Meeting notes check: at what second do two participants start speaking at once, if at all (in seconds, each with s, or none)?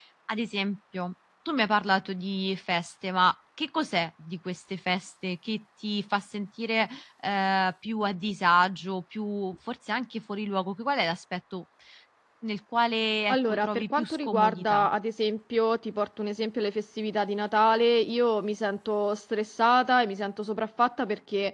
13.3 s